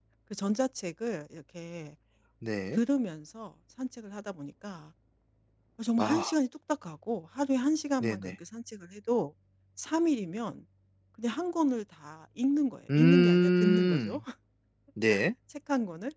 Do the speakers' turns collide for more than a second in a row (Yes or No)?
Yes